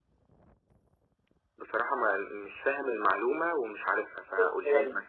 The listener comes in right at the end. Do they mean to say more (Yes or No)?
Yes